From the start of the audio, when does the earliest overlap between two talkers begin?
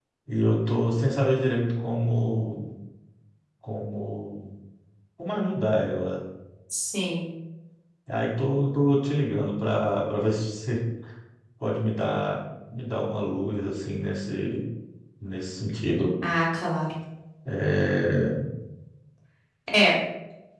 none

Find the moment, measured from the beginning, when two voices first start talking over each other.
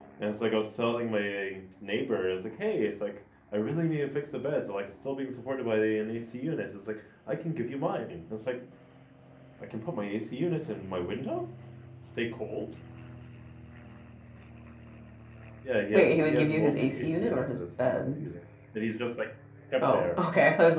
15.9 s

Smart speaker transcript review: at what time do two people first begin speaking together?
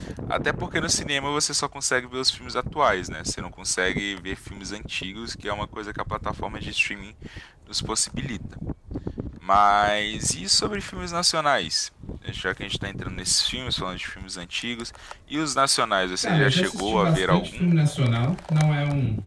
16.2 s

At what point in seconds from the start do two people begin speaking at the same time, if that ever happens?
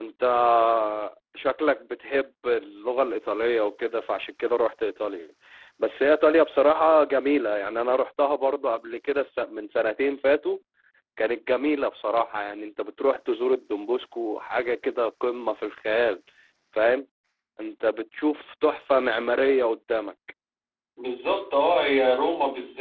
none

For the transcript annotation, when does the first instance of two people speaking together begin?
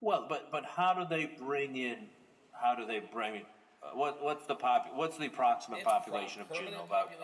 5.7 s

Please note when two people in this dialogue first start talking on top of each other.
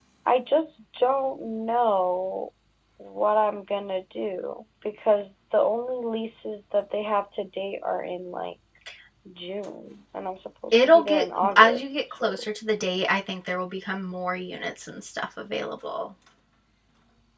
10.7 s

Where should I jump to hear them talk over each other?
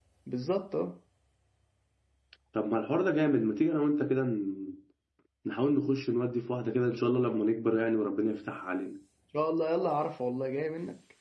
none

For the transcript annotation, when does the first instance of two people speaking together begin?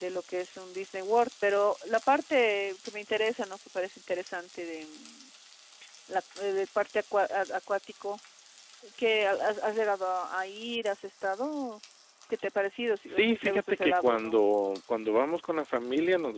13.1 s

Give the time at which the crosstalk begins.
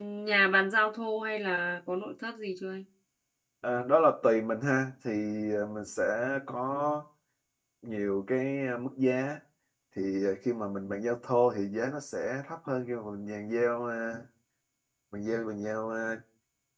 none

